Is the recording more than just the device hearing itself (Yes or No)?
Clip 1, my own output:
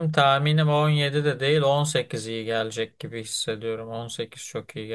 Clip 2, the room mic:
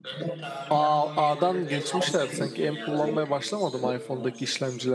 Yes